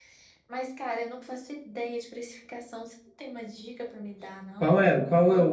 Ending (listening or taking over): taking over